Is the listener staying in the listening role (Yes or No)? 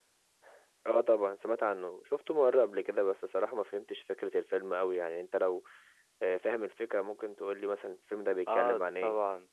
No